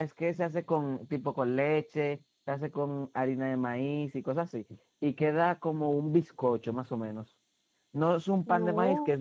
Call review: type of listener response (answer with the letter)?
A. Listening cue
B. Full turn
A